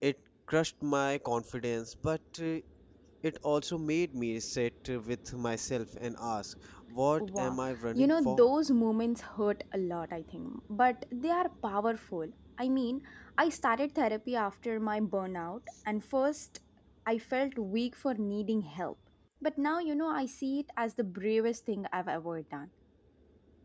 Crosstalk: present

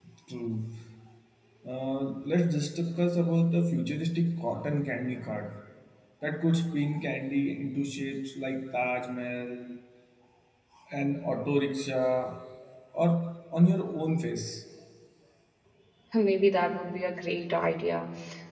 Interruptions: none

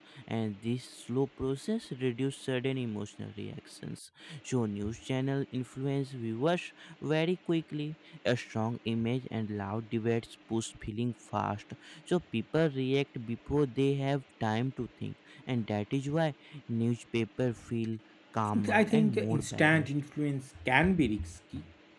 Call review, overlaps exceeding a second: present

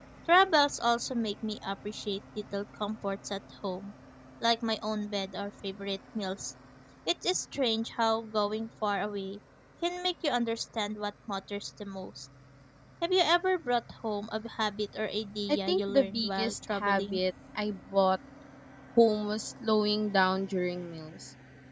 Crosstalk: present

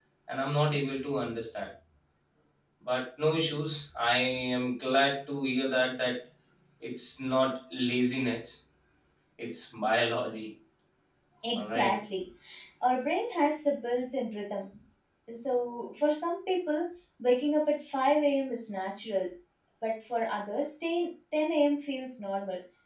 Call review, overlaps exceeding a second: none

